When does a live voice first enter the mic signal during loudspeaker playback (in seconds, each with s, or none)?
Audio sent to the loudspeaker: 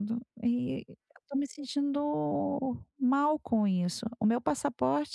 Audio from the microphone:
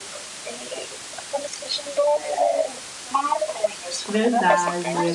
4.1 s